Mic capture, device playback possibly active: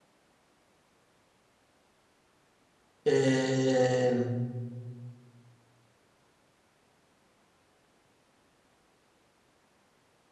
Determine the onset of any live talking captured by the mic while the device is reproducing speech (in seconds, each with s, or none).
3.0 s